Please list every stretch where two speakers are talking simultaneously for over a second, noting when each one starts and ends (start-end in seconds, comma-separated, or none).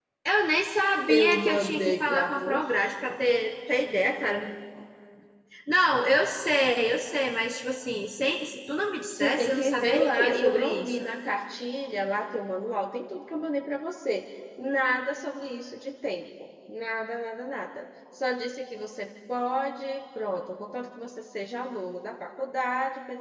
1.1-3.2, 9.1-11.0